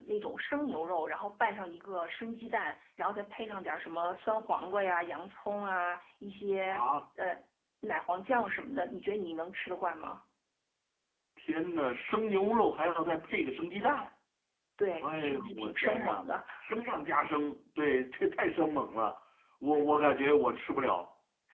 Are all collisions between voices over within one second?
No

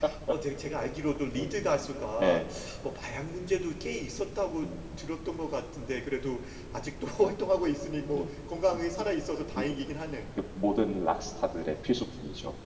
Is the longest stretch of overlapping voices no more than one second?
Yes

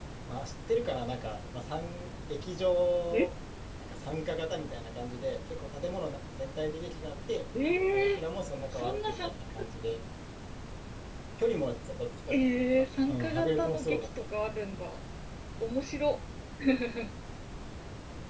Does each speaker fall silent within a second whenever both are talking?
No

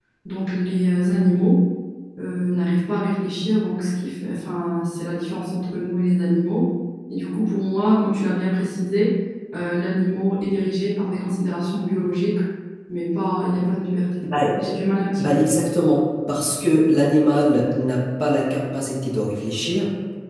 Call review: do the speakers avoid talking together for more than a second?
Yes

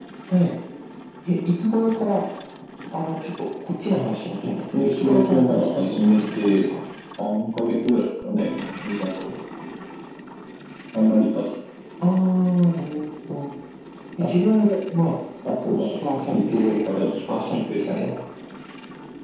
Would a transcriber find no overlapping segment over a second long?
No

